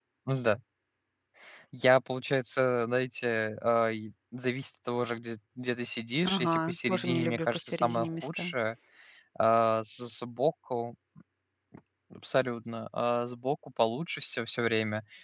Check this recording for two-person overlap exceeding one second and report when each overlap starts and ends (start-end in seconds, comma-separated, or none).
6.2-8.5